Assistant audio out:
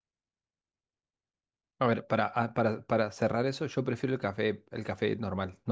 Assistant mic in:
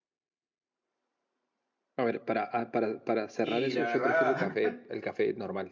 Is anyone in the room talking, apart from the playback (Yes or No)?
Yes